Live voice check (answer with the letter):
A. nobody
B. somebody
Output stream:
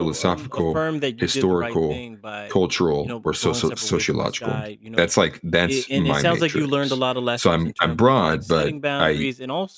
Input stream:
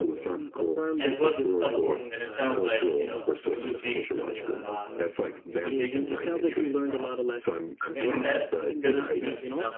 B